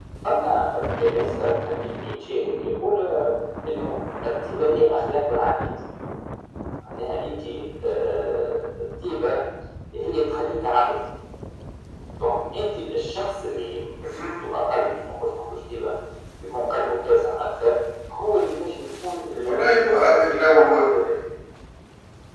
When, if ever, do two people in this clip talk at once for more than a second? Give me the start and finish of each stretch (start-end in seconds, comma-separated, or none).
19.4-20.8